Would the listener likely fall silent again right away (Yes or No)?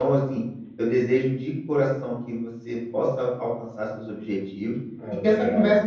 Yes